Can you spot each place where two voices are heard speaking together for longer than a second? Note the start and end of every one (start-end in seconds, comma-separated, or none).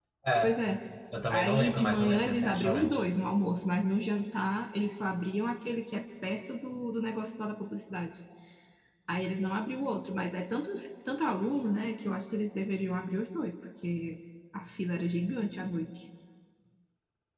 1.3-3.0